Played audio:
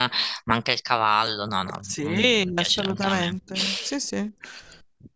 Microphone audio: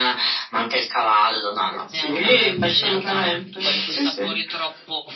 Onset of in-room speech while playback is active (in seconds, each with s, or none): 1.9 s